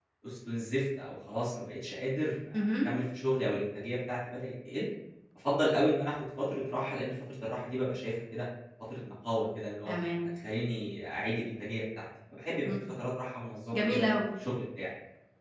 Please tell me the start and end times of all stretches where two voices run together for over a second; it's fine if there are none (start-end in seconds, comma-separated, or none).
none